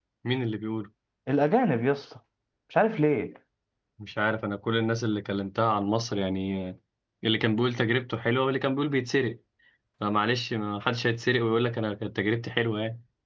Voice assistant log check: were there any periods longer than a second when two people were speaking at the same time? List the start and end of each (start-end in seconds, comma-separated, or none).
none